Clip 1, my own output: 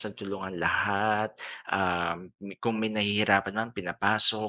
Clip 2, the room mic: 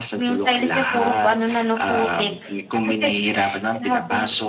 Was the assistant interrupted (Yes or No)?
Yes